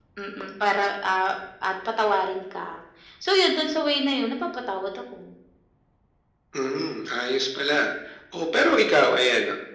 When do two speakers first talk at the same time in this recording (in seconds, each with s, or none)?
none